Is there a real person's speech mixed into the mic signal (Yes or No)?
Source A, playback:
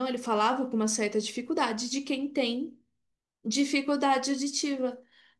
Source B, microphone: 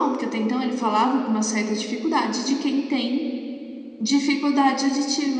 No